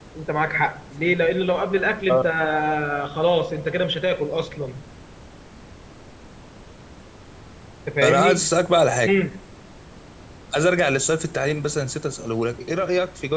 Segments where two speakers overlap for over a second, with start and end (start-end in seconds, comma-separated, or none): none